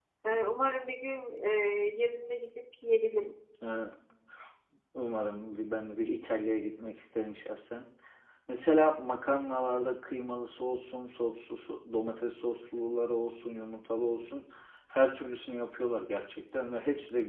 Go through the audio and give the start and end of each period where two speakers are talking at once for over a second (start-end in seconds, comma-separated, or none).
none